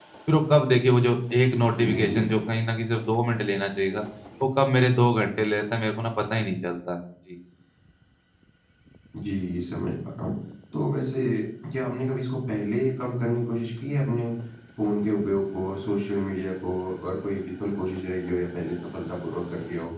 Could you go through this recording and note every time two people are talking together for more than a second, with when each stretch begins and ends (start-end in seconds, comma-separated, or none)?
none